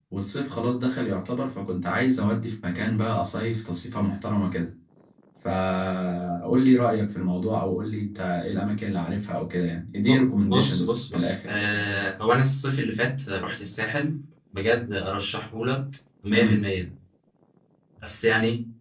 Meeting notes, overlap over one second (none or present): present